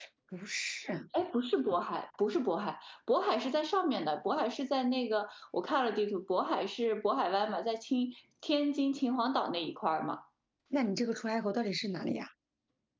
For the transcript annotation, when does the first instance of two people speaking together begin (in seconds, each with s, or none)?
none